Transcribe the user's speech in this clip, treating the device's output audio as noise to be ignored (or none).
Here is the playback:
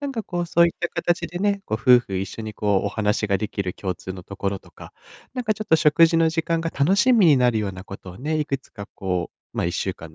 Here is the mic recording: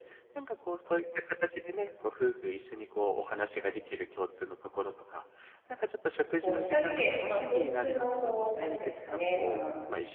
こう2人で、まあ、共通のこう、なんですかね、まあ、好